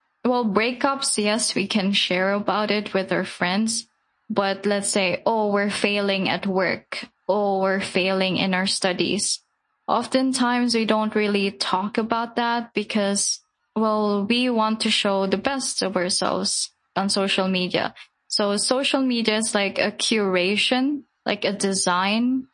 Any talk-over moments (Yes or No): No